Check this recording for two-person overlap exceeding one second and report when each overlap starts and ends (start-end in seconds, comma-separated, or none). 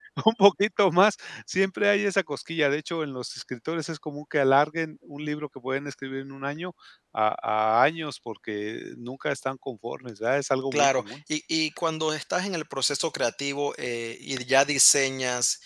none